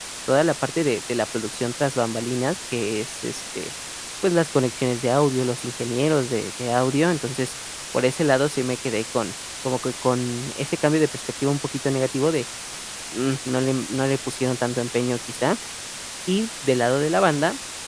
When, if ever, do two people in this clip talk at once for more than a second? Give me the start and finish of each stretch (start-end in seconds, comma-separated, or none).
none